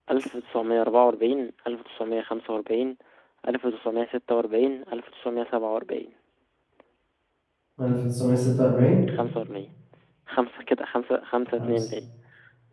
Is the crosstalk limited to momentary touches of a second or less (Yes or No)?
Yes